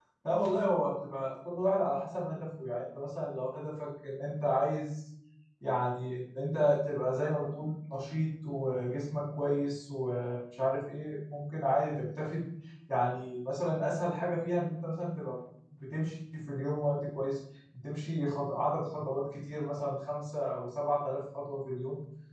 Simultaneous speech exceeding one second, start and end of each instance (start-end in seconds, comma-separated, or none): none